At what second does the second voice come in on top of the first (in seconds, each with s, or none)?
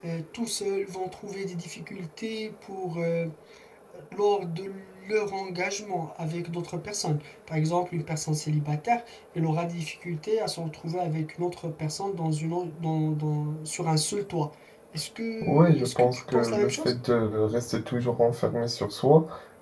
15.4 s